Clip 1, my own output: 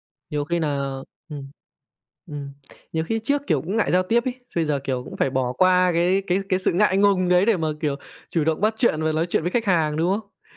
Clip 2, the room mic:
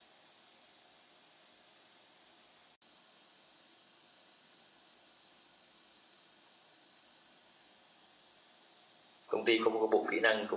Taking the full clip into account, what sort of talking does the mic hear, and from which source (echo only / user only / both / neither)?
user only